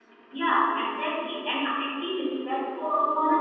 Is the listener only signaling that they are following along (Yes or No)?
Yes